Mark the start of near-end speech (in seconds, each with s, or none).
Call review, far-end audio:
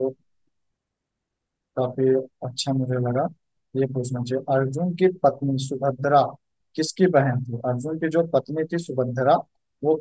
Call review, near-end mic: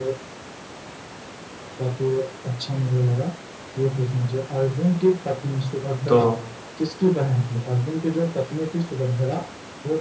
6.1 s